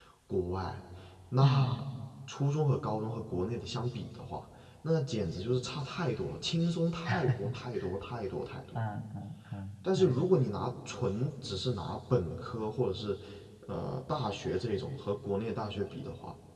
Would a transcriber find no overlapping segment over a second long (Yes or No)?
Yes